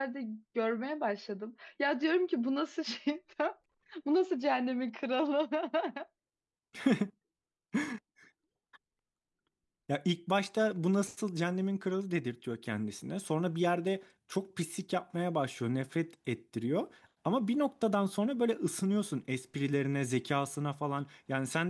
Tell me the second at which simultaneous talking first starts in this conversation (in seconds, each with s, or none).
none